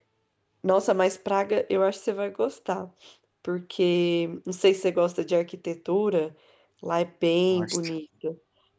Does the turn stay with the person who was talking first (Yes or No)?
Yes